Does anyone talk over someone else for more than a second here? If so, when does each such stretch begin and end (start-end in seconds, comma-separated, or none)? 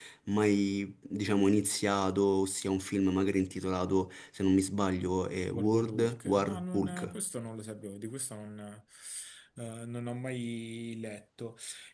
5.5-7.1